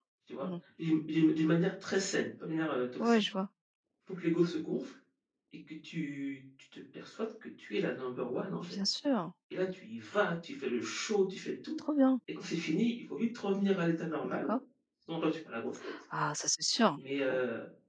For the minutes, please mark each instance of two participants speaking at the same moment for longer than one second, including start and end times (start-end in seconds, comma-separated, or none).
none